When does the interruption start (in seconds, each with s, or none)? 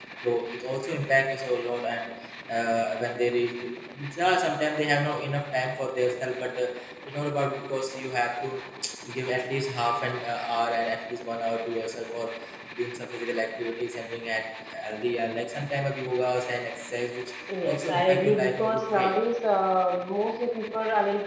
17.5 s